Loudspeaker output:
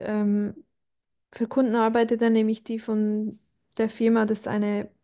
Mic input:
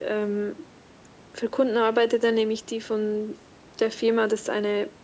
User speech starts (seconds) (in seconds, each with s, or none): none